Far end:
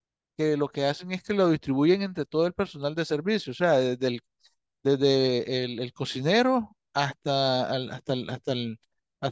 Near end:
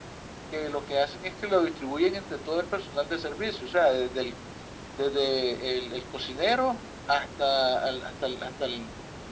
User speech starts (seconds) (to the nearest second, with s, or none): none